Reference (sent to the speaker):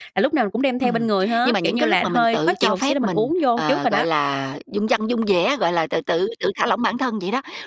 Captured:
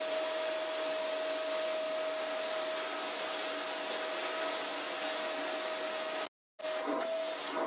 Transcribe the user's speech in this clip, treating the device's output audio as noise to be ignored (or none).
none